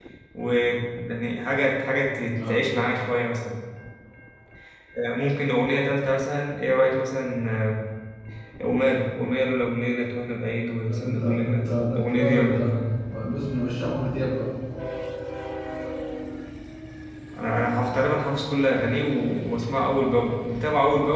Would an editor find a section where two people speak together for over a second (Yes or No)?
Yes